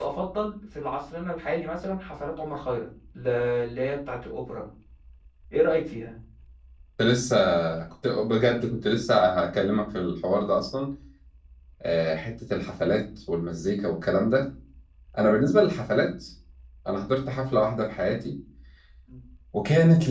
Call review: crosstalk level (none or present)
none